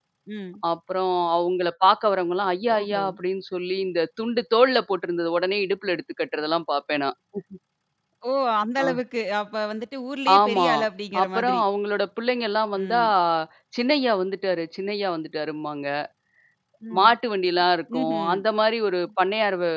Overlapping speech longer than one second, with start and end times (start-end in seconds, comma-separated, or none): none